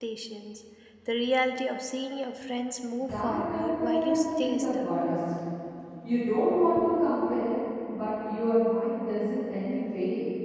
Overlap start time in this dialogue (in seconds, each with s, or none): 3.0 s